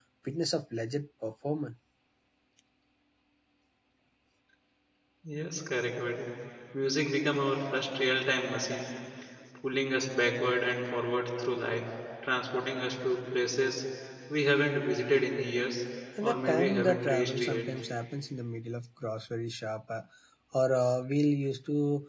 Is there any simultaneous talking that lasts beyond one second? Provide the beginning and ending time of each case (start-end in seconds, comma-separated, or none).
16.2-17.6